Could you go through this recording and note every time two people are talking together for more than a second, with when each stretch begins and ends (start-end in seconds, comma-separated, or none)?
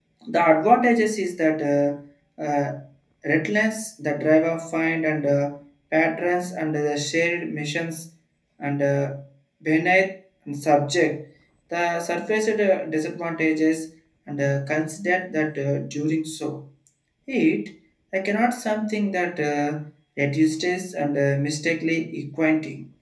none